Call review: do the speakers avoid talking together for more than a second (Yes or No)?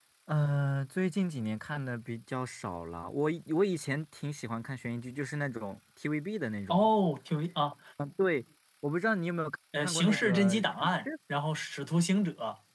No